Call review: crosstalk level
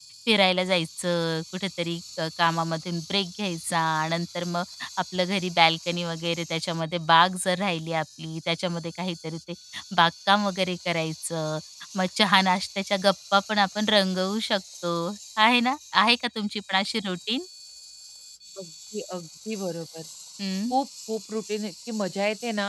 none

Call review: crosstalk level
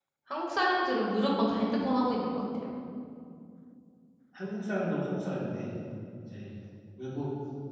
none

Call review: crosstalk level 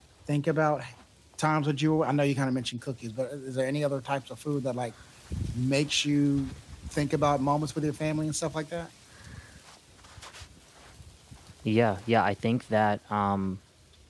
none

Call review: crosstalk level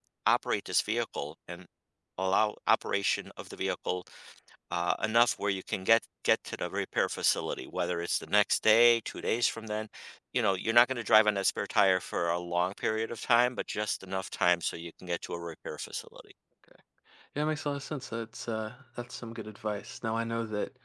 none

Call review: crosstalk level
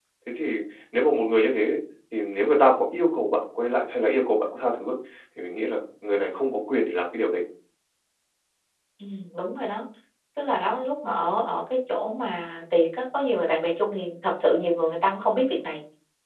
none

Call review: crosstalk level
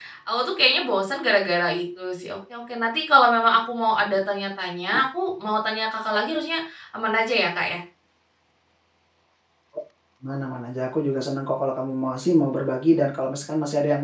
none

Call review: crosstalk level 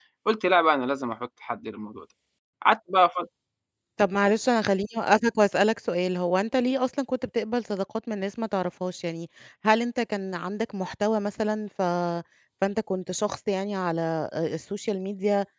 none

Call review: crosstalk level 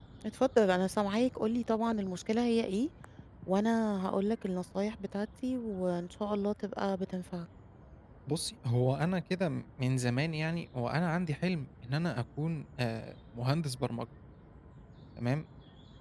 none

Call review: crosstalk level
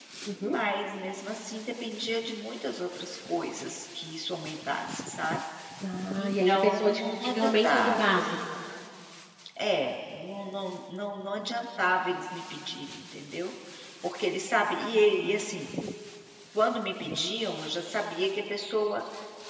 present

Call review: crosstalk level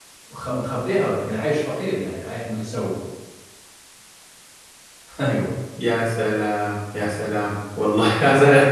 none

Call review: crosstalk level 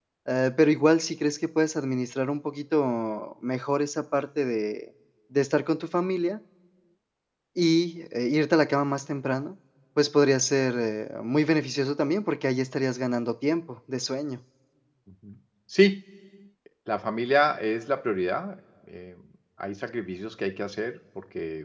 none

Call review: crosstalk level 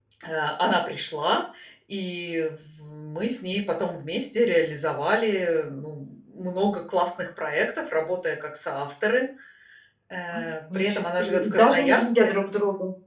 present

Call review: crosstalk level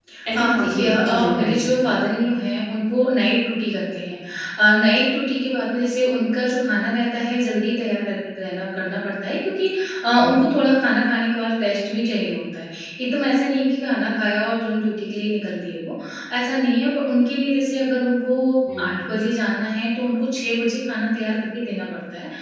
present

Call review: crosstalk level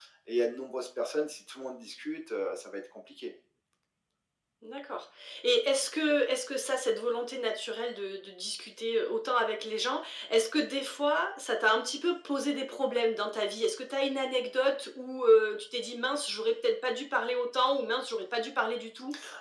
none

